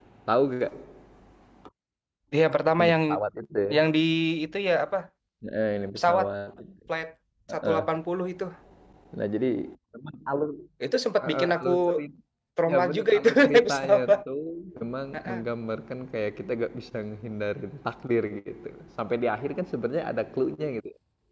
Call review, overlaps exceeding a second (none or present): present